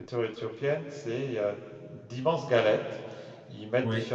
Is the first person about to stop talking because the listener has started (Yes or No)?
No